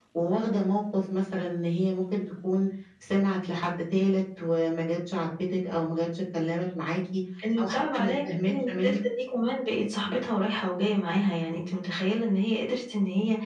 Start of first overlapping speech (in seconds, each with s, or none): 7.6 s